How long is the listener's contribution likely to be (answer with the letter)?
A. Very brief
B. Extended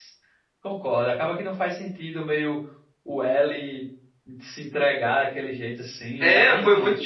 B